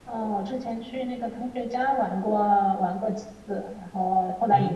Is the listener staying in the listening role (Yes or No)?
No